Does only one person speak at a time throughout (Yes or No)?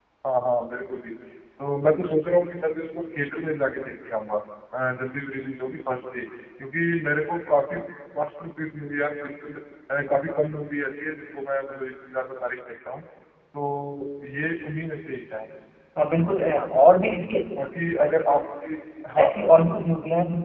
Yes